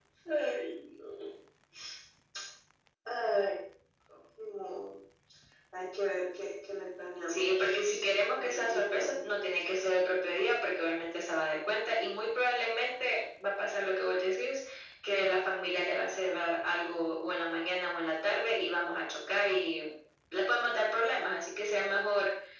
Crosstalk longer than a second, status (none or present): present